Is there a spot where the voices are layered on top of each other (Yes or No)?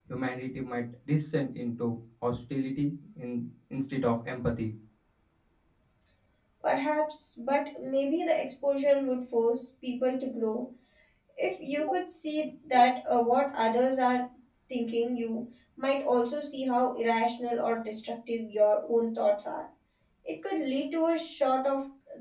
No